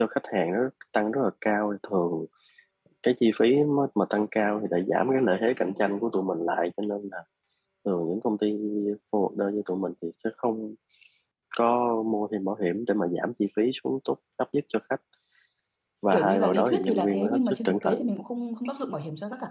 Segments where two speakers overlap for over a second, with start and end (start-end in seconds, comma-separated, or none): 16.1-18.0